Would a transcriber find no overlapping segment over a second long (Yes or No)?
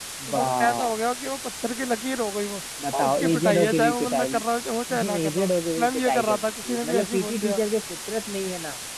No